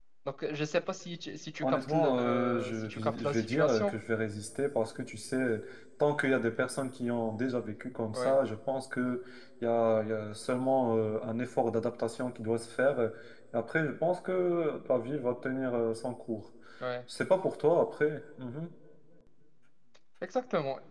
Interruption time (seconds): 2 s

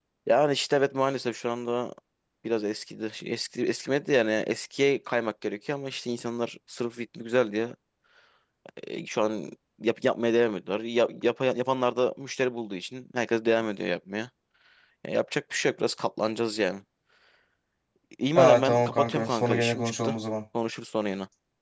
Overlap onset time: 18 s

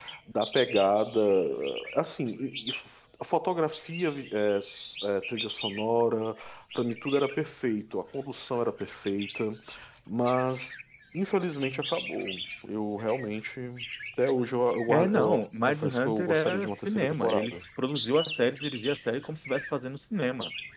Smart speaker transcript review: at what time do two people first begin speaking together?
15 s

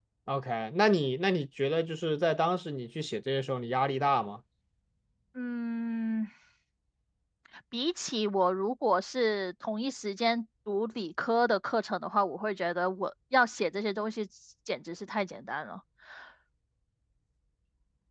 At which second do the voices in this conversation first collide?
none

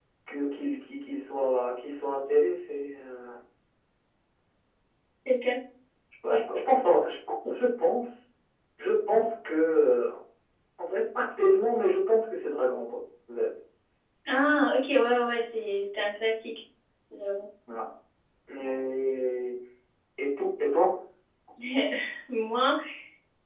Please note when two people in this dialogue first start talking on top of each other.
none

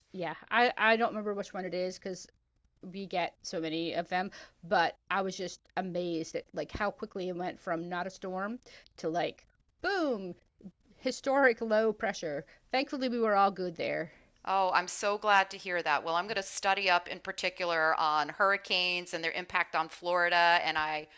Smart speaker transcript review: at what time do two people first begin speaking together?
none

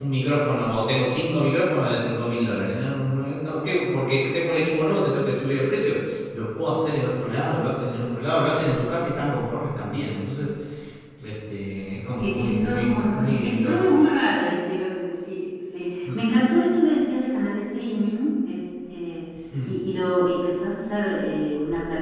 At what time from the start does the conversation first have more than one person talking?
12 s

